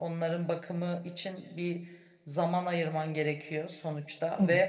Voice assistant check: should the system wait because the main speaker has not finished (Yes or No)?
Yes